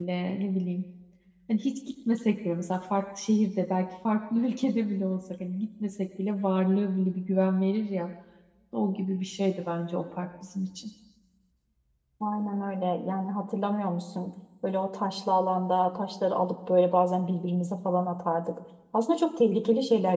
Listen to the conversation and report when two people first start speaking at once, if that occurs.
none

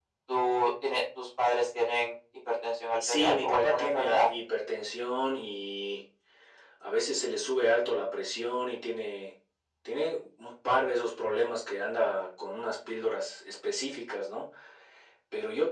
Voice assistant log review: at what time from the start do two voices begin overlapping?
3.0 s

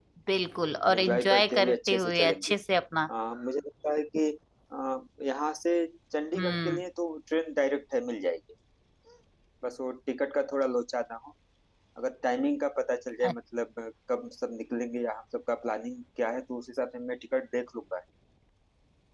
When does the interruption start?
0.9 s

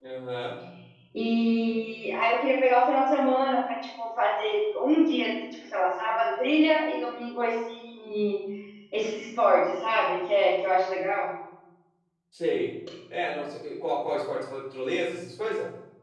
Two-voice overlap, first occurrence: none

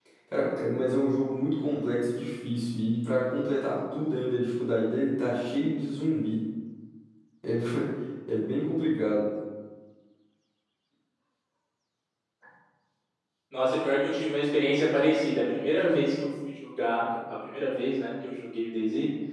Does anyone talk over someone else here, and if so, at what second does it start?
none

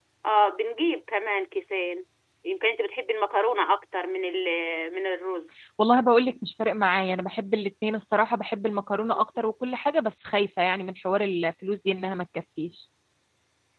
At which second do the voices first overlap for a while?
none

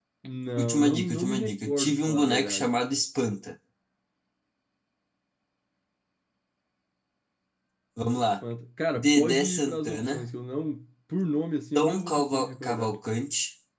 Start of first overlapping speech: 0.6 s

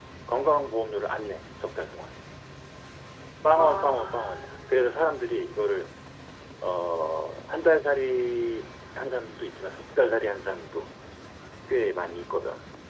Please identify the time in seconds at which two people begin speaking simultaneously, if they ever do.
3.6 s

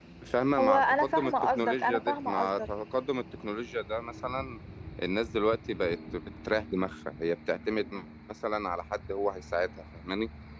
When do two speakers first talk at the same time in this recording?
0.6 s

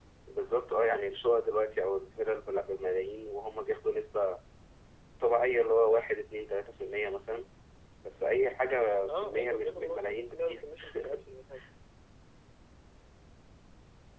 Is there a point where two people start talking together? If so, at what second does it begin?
9.1 s

